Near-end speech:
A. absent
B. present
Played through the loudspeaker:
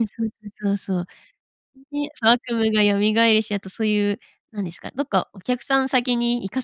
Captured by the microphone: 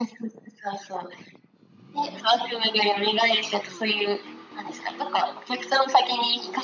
A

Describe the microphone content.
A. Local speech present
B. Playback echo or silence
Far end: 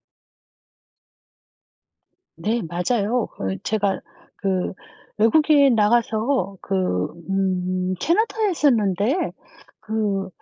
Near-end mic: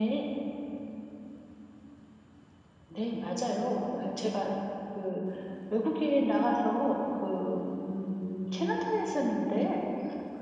B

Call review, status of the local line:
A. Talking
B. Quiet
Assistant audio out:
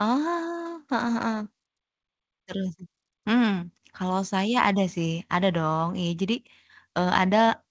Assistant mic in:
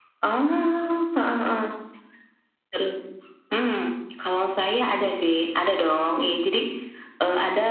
B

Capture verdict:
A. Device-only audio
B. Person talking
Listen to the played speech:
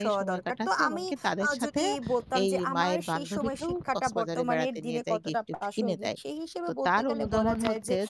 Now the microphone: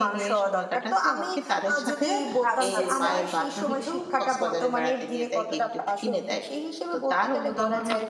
B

